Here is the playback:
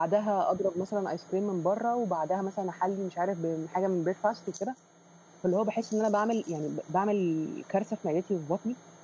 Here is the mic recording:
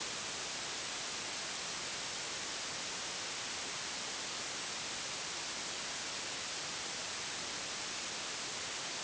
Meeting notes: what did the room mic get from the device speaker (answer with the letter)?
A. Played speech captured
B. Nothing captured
B